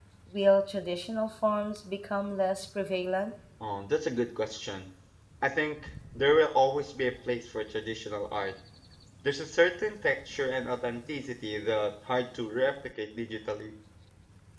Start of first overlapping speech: none

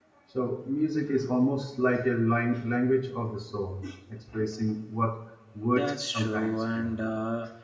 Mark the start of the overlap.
6 s

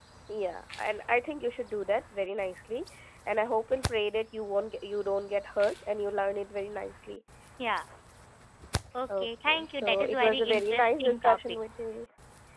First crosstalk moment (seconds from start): 9 s

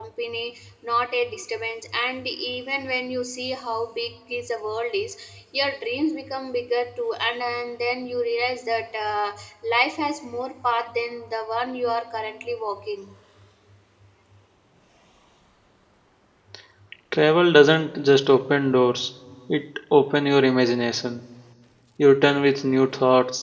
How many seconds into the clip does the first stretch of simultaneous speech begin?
none

